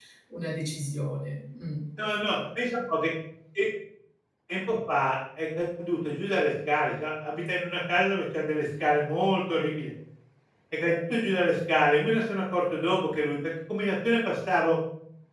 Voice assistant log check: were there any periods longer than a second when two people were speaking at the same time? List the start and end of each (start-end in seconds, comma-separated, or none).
none